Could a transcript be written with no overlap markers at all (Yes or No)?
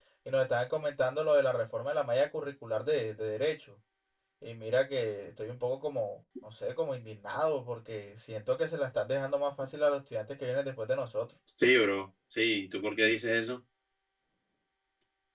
Yes